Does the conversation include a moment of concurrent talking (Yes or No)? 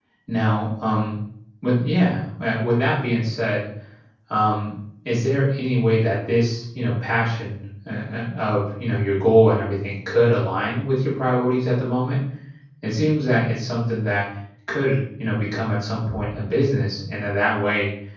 No